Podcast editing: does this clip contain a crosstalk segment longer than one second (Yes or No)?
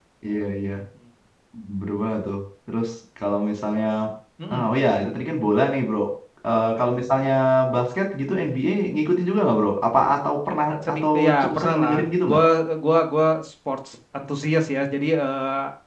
Yes